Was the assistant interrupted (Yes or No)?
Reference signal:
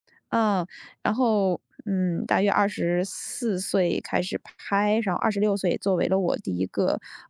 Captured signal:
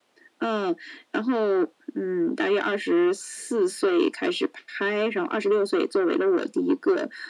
No